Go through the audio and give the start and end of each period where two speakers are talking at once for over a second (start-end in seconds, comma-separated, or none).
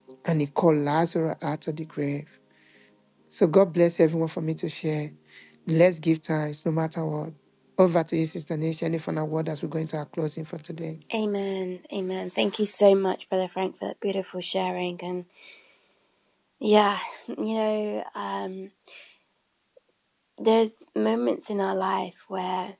none